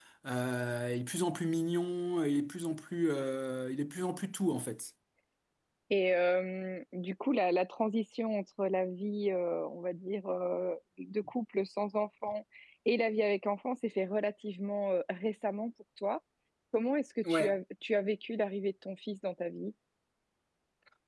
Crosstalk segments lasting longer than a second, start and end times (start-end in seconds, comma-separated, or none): none